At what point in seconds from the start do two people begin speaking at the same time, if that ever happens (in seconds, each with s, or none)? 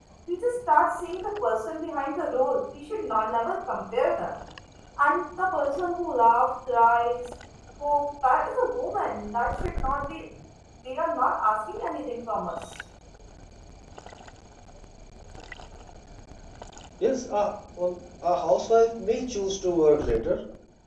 none